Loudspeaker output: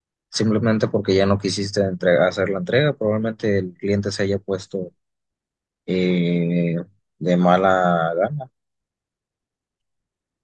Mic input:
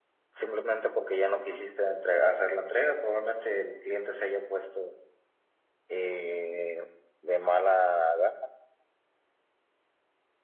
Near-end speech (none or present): none